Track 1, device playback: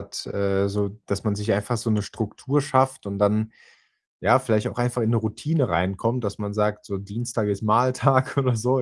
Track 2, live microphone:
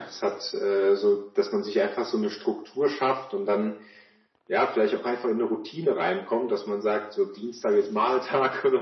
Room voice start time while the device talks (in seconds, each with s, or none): none